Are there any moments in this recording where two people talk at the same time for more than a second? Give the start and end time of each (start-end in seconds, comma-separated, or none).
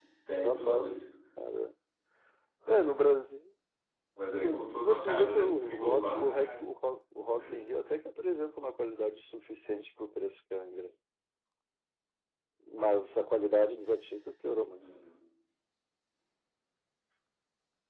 4.4-6.7